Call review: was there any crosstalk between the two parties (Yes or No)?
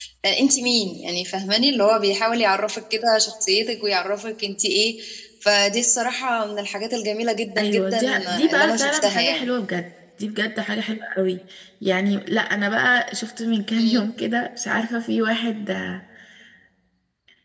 Yes